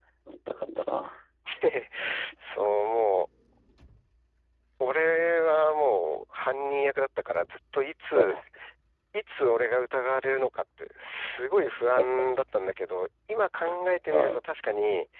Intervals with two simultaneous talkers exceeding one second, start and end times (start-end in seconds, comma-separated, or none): none